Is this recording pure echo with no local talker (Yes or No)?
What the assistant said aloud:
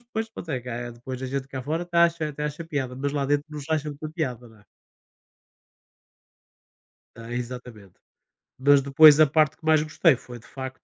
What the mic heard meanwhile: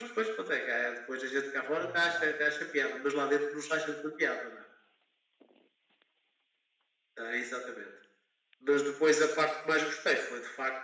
No